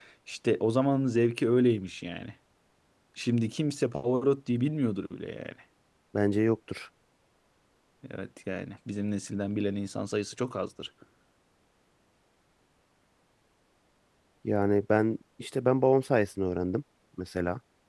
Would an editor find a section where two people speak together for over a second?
No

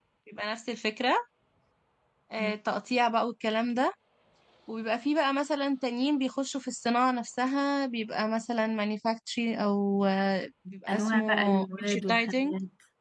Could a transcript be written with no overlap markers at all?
No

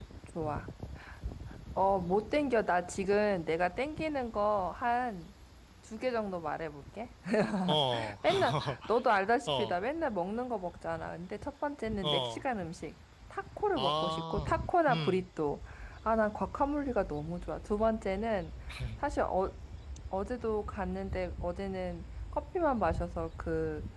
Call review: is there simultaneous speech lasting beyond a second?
Yes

